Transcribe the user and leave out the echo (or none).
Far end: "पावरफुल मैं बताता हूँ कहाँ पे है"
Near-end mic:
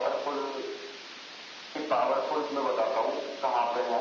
none